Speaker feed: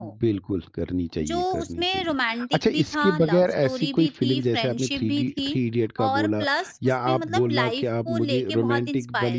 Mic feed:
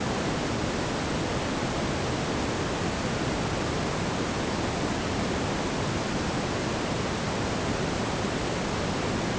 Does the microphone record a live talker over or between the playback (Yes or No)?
No